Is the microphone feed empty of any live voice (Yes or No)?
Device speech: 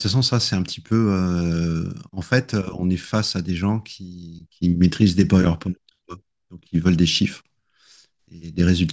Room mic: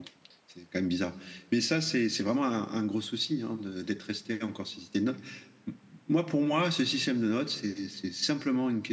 No